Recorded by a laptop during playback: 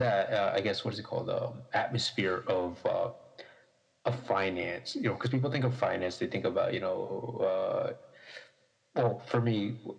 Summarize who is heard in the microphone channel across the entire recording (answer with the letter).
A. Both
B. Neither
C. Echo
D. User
C